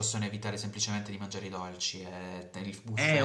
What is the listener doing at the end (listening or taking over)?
taking over